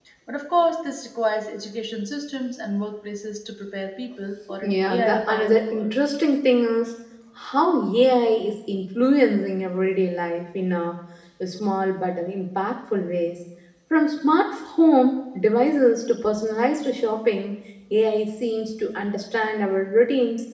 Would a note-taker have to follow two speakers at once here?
Yes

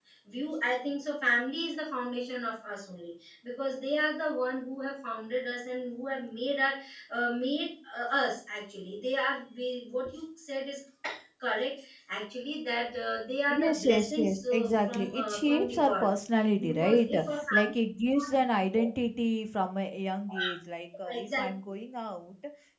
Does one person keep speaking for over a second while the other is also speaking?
Yes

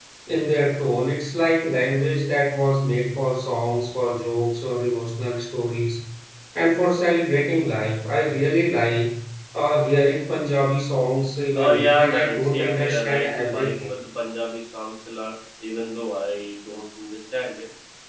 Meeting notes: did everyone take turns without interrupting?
No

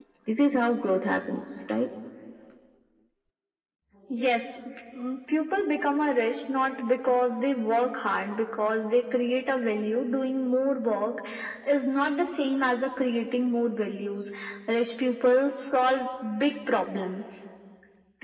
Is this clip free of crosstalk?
Yes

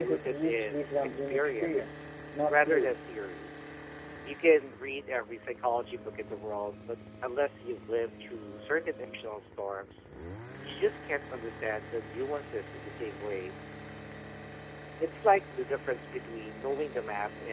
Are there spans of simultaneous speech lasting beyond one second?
Yes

